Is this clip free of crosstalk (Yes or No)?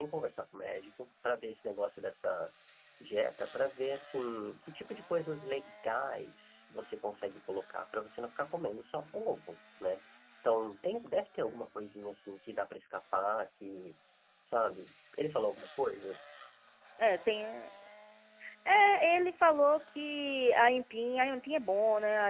Yes